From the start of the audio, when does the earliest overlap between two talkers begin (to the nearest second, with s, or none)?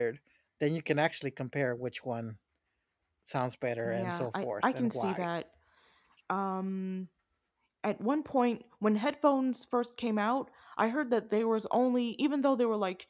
4 s